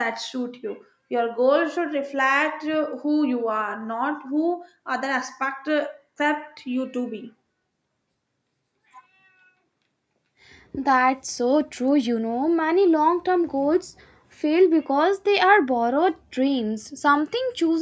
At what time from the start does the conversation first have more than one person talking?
none

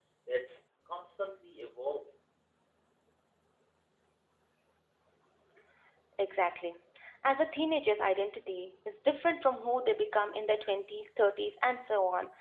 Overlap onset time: none

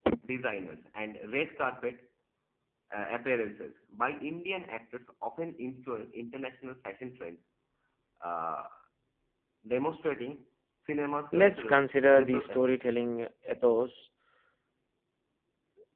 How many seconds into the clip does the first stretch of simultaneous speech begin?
11 s

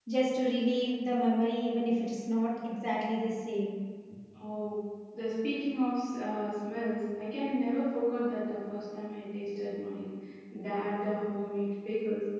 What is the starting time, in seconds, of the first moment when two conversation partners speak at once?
none

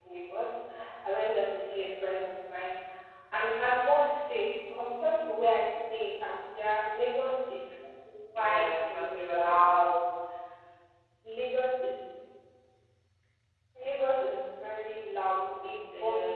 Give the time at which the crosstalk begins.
8 s

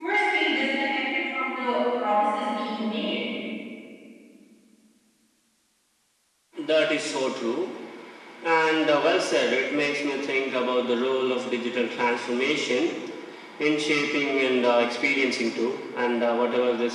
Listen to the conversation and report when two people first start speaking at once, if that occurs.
none

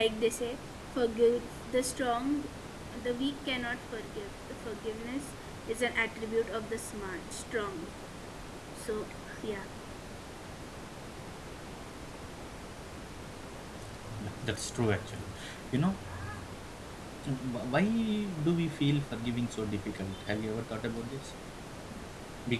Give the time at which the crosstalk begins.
none

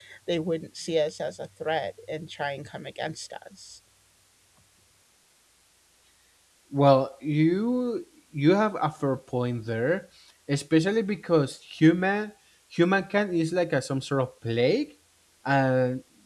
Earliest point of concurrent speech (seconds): none

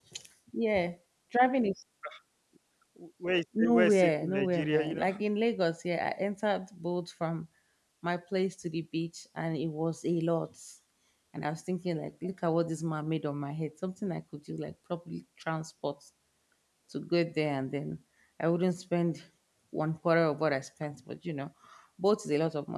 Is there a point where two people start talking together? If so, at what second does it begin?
4 s

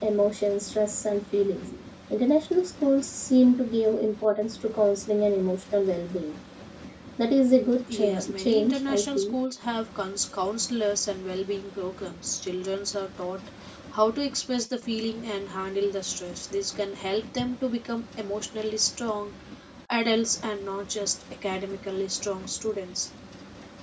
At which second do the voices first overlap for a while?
8 s

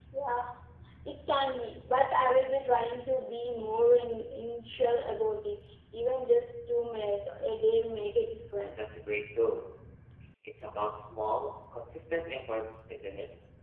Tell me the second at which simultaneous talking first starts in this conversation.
none

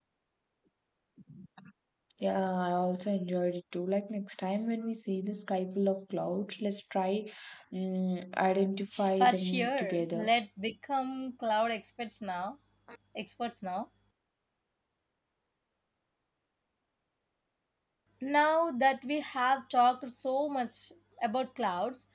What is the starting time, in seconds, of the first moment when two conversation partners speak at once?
9 s

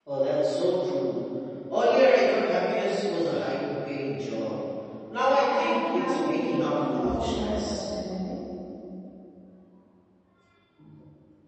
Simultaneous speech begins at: 5 s

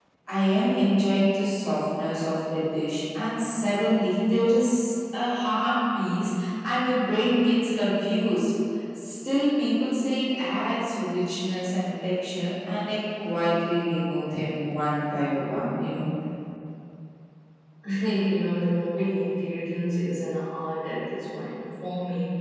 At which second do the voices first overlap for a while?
none

